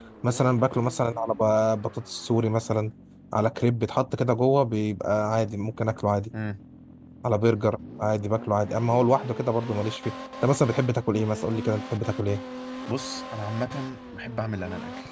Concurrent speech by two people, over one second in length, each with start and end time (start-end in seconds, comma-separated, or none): none